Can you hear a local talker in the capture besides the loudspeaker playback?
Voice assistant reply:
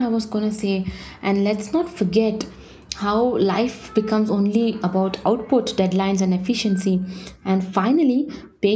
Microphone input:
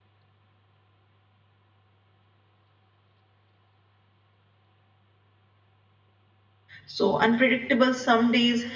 Yes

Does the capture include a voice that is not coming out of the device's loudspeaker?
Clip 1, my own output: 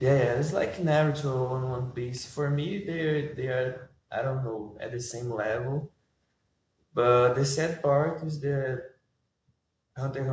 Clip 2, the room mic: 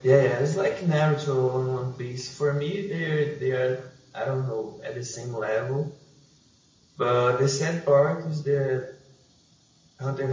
No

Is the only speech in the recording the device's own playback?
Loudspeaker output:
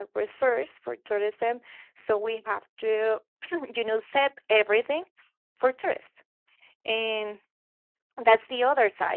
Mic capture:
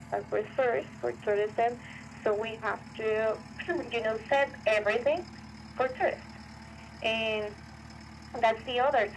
Yes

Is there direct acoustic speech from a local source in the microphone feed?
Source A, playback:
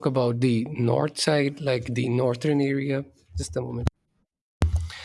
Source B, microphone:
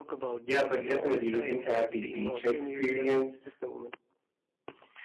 Yes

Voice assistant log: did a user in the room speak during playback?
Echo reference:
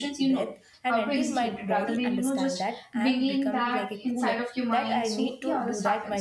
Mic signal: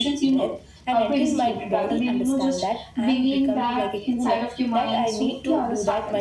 No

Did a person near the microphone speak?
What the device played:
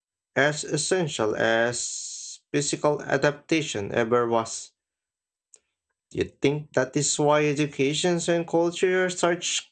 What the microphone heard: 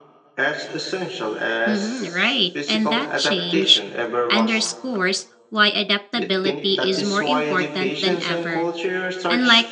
Yes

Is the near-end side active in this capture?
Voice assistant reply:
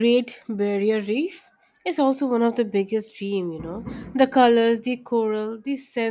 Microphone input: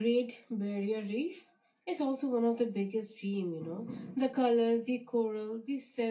No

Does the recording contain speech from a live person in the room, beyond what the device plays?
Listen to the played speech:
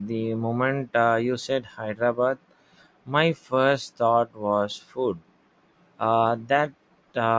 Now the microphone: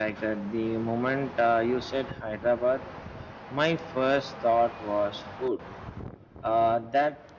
No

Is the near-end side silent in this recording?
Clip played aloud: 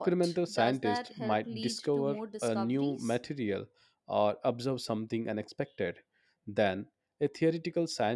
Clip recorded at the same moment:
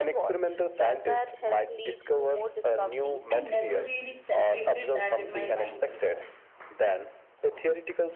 No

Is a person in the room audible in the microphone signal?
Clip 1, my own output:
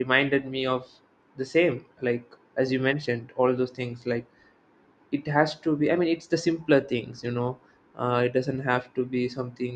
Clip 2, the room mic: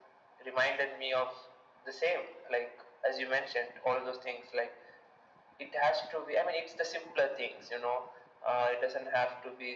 No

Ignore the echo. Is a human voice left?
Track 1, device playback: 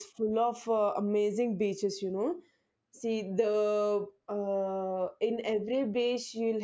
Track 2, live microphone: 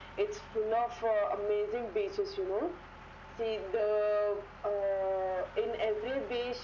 No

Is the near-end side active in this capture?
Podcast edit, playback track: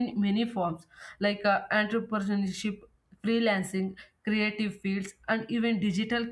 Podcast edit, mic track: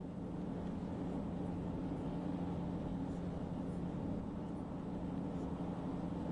No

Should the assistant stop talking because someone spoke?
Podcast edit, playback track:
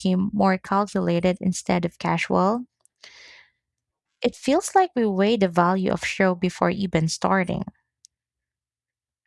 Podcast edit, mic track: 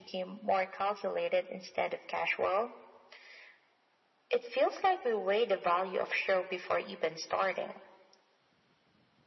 No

